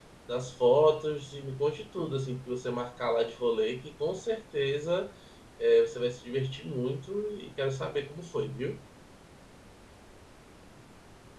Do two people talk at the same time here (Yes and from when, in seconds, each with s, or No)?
No